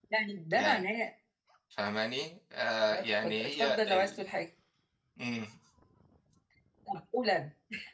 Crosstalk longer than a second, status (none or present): present